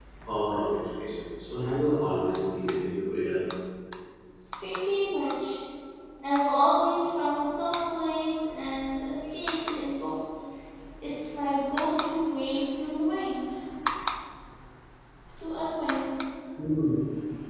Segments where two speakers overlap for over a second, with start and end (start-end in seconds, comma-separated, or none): none